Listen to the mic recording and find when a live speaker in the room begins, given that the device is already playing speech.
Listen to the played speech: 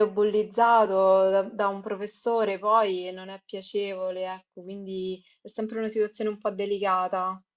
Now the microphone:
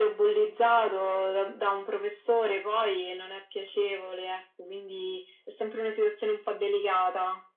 none

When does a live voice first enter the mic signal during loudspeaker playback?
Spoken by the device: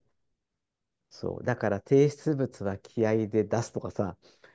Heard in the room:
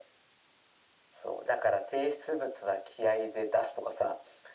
none

